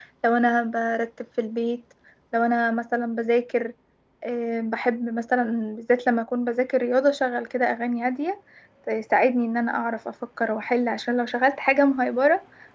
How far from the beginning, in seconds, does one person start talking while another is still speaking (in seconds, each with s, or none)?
none